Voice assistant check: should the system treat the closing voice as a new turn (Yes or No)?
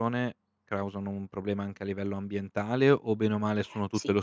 Yes